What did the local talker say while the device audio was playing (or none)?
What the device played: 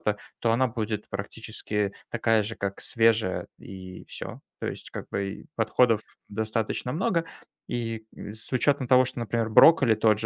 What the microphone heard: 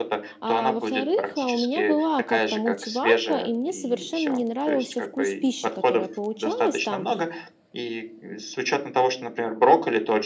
А во-вторых, а, у меня была как-то мультиварка, и мне совершенно не нравился вкус пищи, которая получалась там.